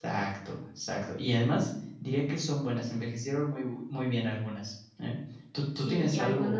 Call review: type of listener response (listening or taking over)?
taking over